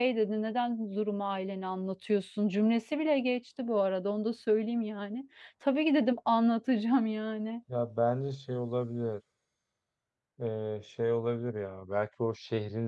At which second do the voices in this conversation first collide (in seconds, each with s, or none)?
none